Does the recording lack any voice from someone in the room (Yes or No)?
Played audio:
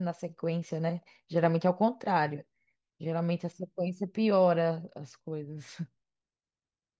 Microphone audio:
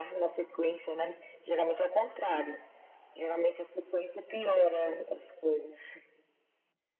Yes